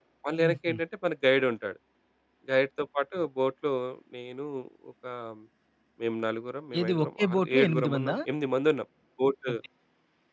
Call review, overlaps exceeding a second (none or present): present